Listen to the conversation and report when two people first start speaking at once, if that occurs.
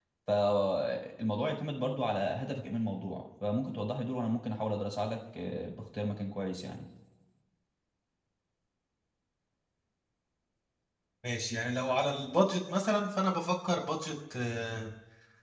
none

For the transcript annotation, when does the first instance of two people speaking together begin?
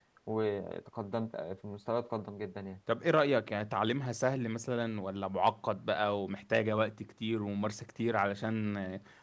none

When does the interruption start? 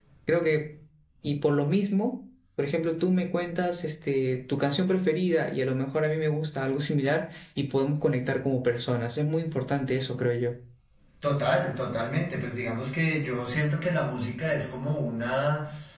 none

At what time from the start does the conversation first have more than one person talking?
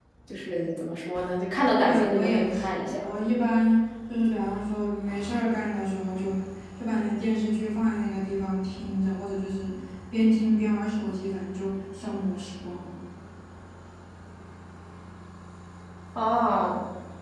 1.8 s

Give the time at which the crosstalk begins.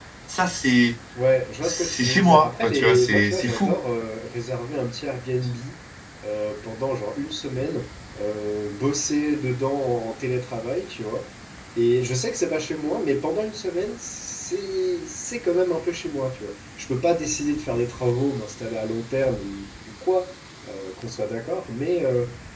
1.6 s

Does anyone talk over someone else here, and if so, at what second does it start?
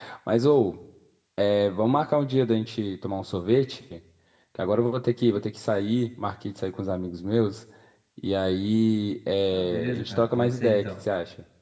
9.5 s

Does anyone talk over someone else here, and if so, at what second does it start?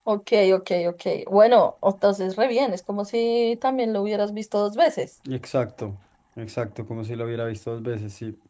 none

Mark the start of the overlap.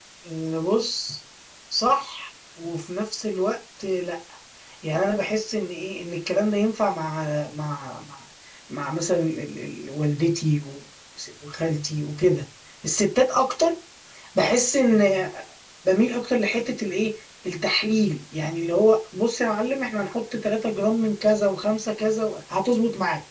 none

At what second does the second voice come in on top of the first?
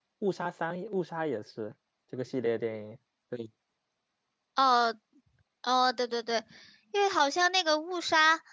none

